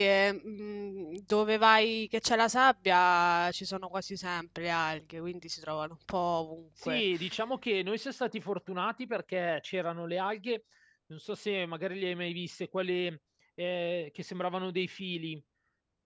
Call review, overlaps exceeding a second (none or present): none